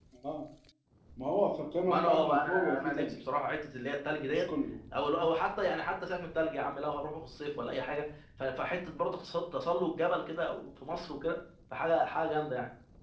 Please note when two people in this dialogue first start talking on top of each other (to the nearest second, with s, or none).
2 s